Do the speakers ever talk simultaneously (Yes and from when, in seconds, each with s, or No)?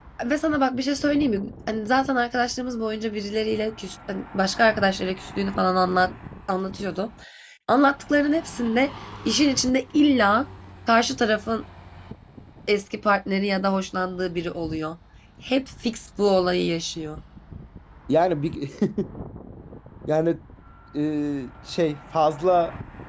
No